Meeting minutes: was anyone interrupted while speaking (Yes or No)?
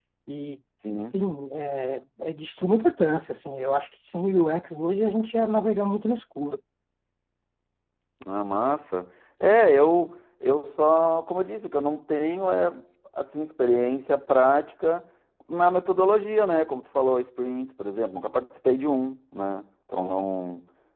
No